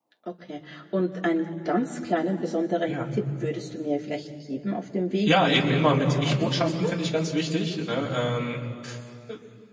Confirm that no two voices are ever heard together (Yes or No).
No